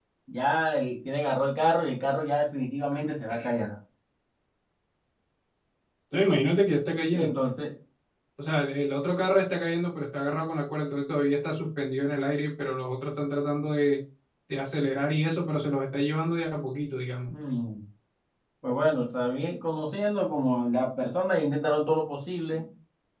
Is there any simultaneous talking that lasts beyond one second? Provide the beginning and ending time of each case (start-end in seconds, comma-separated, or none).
none